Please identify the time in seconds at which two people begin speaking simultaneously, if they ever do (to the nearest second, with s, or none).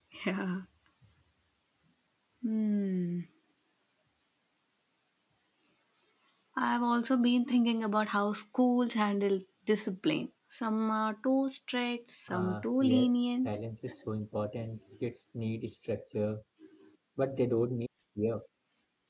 12 s